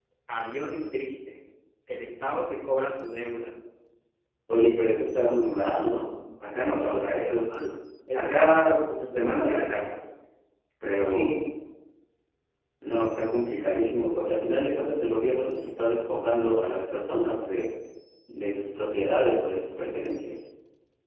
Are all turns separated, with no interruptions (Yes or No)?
No